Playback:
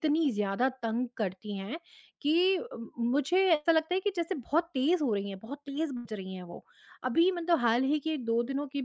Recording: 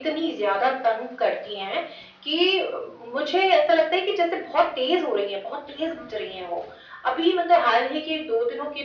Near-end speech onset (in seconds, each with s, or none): none